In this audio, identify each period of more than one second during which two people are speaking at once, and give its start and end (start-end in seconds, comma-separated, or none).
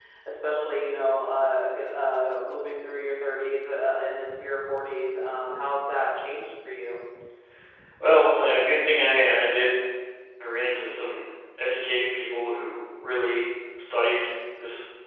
none